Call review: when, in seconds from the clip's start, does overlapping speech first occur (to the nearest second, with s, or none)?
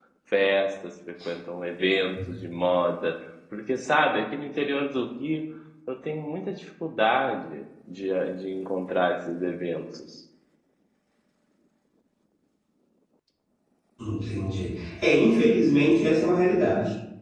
none